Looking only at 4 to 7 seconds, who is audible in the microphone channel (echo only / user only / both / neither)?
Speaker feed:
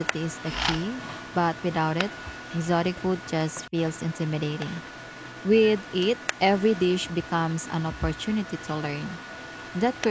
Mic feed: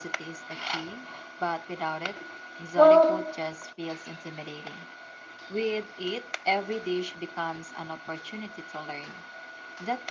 echo only